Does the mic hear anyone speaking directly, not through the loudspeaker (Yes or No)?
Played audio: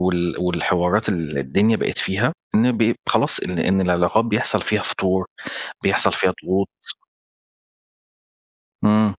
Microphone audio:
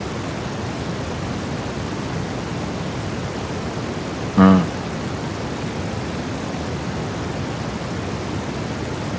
Yes